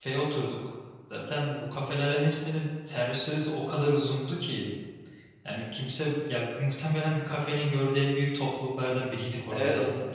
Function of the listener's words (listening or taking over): taking over